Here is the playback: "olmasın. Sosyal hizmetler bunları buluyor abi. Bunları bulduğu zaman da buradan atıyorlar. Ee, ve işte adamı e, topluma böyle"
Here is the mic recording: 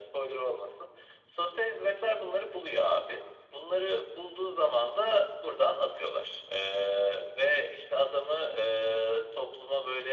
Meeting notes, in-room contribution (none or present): none